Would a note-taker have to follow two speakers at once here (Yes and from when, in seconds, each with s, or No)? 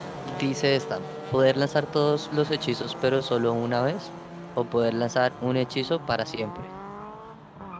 No